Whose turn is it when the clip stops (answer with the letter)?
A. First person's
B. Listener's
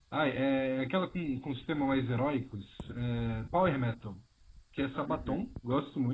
A